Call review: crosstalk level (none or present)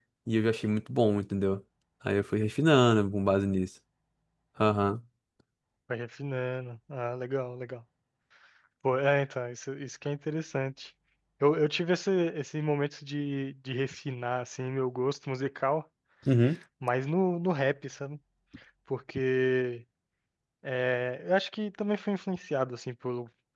none